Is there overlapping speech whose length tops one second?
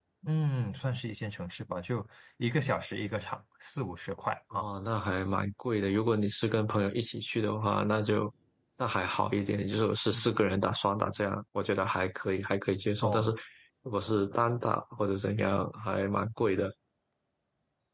No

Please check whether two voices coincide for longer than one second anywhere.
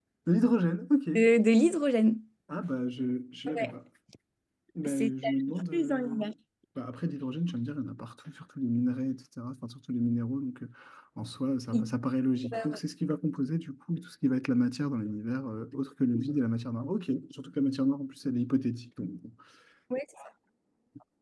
Yes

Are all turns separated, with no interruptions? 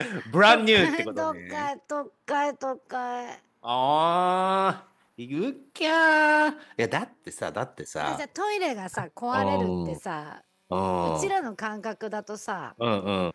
No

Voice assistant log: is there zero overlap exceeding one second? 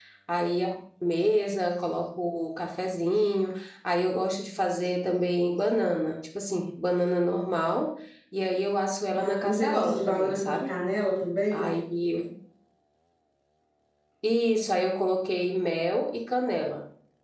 No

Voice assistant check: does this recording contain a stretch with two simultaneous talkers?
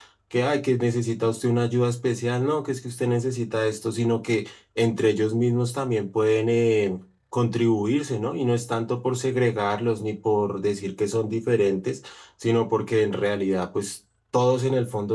No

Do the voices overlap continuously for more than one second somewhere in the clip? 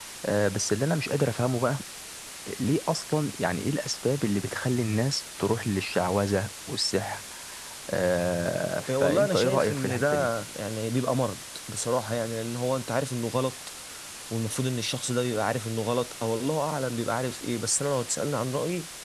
Yes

